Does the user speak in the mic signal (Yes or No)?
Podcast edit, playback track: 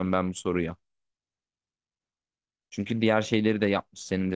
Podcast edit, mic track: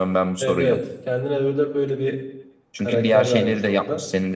Yes